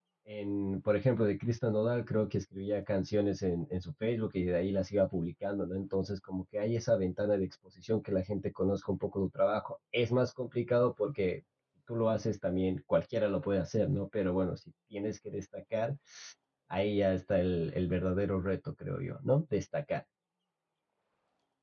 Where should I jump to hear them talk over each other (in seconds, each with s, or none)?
none